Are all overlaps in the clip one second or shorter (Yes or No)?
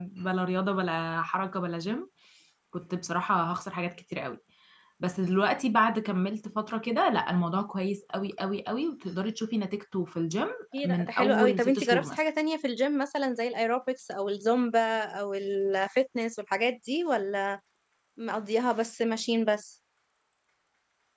No